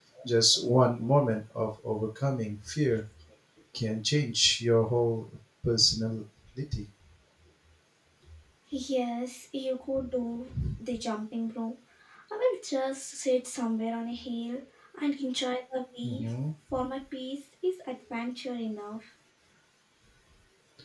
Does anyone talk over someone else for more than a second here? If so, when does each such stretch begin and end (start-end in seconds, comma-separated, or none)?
none